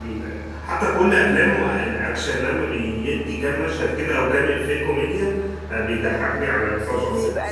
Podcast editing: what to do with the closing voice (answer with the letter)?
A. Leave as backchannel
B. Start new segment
A